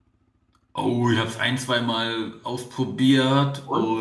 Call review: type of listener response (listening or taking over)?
listening